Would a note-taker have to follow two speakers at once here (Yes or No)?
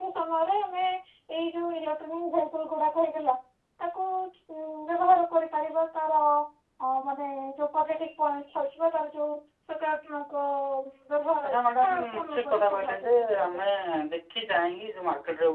Yes